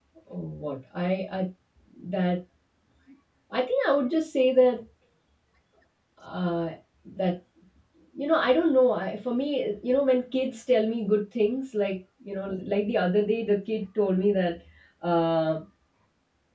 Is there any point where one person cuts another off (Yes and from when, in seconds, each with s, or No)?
No